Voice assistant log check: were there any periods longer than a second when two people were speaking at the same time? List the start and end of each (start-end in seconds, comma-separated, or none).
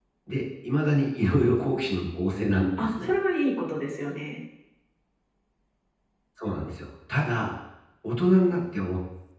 none